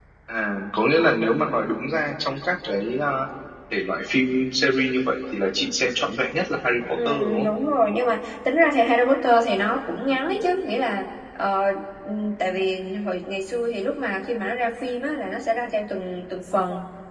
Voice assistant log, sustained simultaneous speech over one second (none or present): none